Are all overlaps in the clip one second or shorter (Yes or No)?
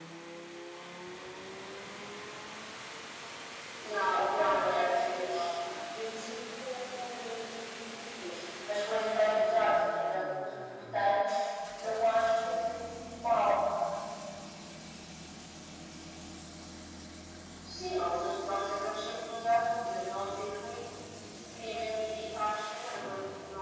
No